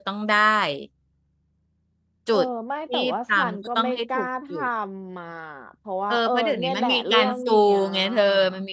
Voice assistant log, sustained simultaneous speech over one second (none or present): present